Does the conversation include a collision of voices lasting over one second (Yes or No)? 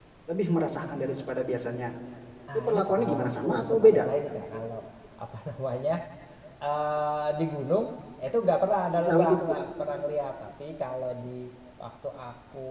Yes